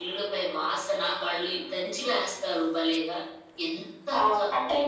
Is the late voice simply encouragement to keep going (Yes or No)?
No